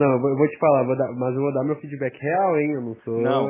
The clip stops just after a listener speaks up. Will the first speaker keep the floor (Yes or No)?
No